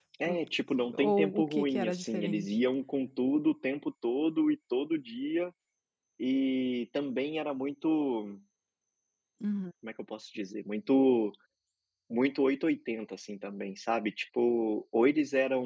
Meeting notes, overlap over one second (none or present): present